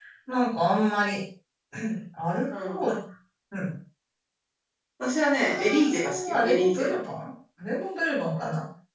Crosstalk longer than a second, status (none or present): present